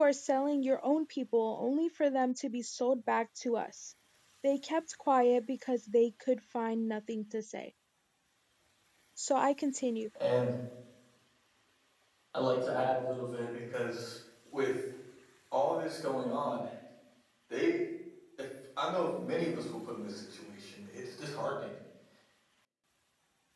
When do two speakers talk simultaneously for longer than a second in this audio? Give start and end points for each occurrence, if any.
none

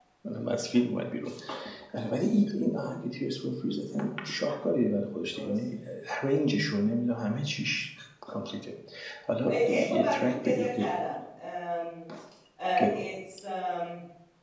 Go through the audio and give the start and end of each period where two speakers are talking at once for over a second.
9.5-10.7

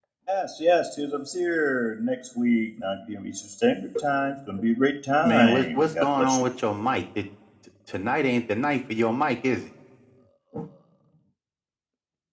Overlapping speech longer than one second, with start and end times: 5.2-6.4

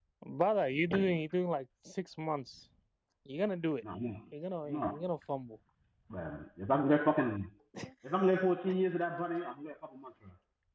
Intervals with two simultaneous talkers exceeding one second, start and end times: none

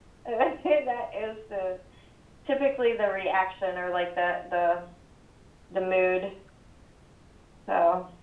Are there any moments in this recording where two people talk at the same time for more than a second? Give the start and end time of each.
none

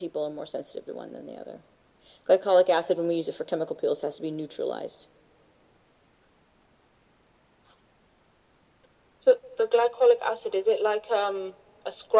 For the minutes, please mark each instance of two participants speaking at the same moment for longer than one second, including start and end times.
none

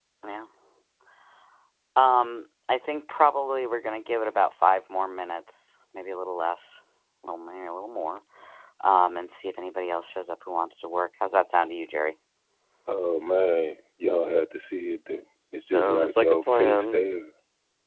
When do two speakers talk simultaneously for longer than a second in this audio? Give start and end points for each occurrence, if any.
15.7-17.0

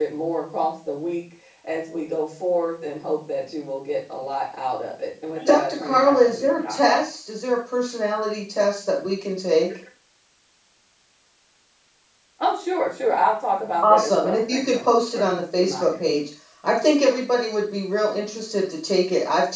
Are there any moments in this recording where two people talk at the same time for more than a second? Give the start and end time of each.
5.4-7.0, 13.8-16.0

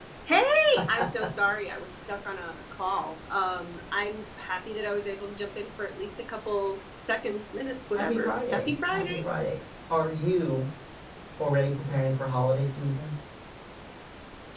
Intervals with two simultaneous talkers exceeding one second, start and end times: 8.0-9.2

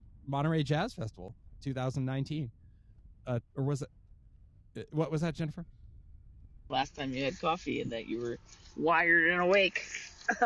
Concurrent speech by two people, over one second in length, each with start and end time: none

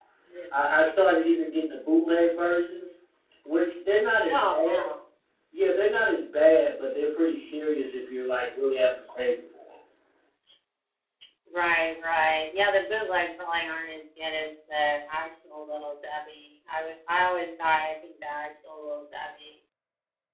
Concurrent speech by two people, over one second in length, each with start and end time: none

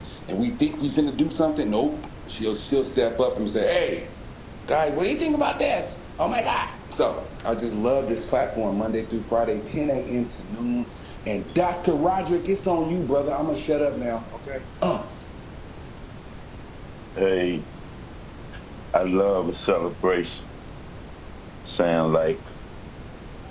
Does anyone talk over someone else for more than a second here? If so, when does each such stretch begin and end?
none

